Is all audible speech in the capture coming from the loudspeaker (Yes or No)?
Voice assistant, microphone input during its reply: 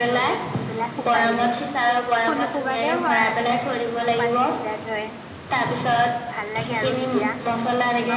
No